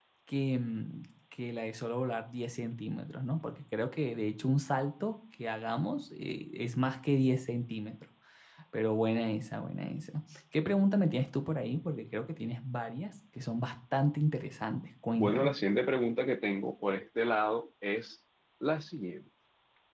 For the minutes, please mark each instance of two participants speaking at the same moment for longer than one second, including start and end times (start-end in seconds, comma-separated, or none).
none